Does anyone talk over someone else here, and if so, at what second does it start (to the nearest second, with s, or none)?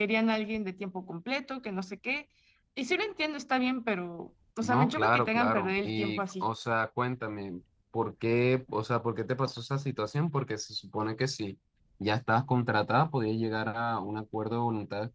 5 s